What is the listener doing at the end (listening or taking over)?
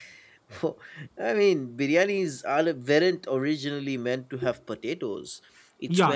taking over